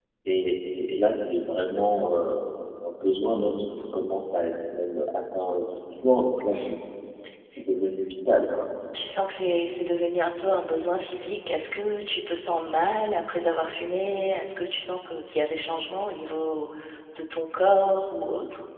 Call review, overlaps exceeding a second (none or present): none